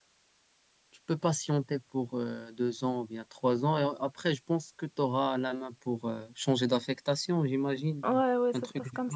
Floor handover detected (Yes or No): Yes